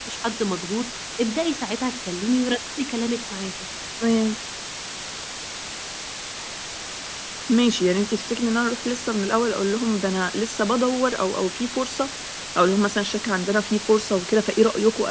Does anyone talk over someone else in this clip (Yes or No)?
No